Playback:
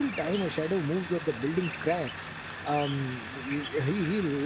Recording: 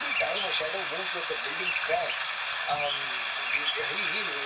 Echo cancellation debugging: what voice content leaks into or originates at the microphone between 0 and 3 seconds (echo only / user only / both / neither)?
echo only